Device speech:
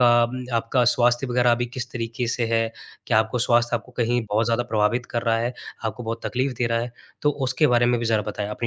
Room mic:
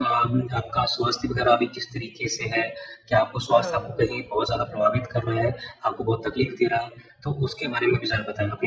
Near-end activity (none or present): present